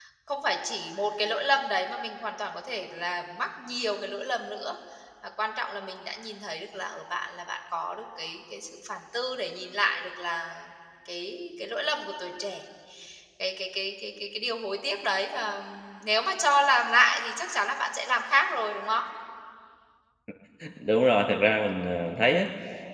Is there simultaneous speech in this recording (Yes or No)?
No